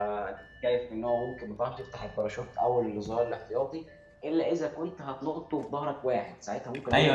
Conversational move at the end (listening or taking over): taking over